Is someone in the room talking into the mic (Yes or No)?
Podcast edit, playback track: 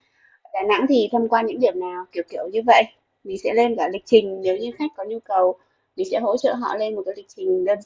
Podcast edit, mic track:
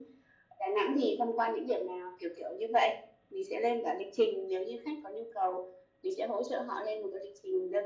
No